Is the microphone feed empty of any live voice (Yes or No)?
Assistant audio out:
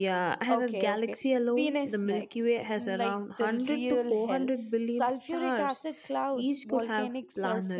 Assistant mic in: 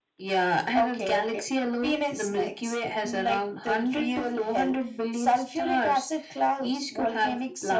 Yes